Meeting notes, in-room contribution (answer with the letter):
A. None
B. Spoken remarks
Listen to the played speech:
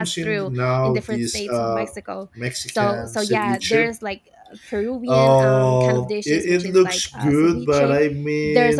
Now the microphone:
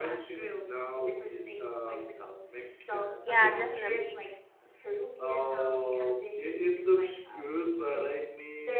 B